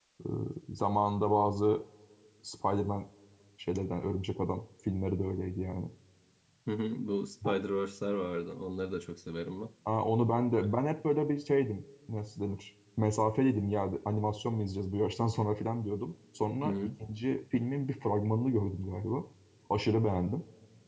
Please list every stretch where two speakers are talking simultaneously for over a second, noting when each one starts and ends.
none

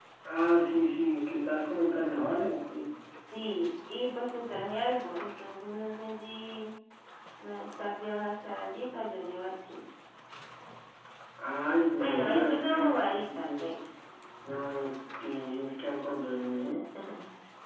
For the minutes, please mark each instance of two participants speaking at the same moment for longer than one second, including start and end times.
11.9-13.6

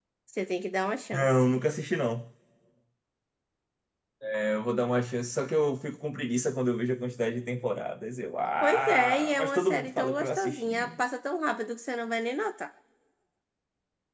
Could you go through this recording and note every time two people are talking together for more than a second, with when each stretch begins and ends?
8.6-10.9

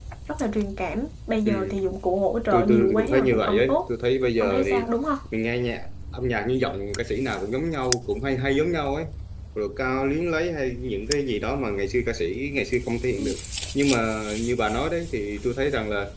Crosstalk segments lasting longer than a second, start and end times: 2.5-3.9

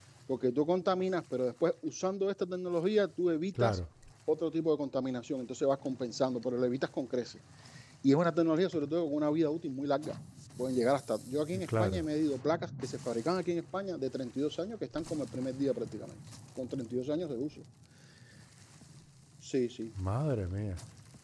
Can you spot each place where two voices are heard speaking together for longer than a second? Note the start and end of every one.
none

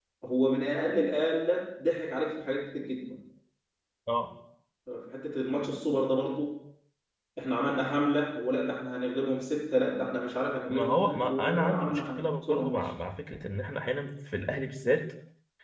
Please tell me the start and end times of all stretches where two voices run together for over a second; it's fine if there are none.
10.7-12.9

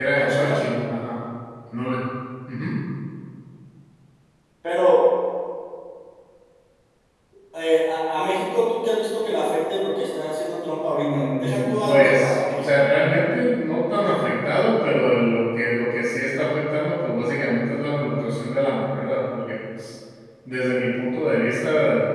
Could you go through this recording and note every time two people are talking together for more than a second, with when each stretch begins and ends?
10.9-12.8

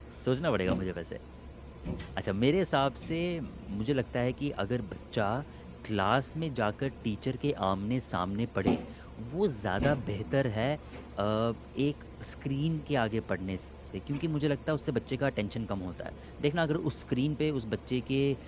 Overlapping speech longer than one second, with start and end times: none

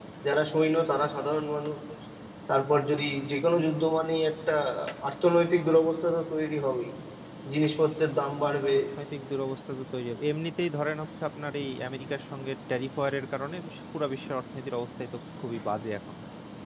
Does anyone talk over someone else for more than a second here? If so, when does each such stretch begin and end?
none

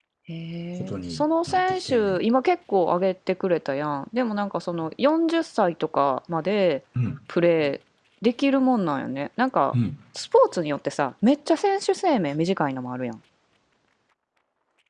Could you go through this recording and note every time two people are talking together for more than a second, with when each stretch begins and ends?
0.9-2.2

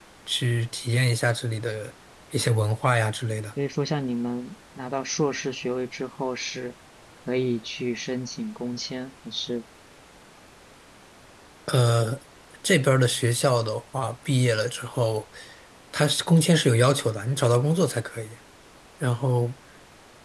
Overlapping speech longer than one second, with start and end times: none

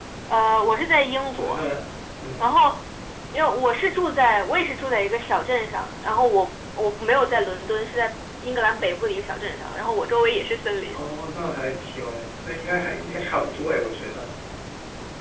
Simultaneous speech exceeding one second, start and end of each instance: none

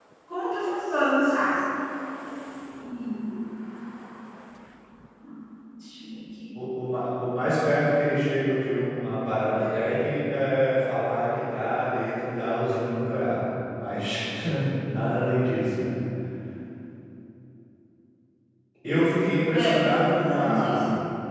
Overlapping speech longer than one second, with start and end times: 19.5-20.8

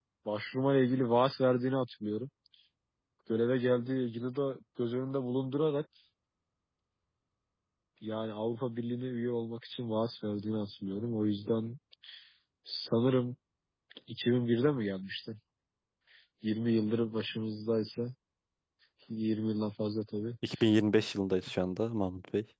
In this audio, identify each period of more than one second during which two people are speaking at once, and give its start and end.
none

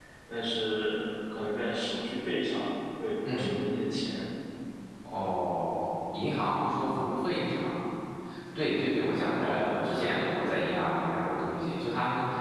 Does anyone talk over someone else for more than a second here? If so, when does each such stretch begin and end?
9.4-10.7

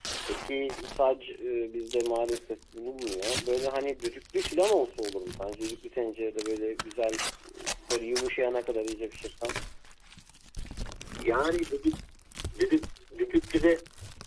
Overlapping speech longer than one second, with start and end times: none

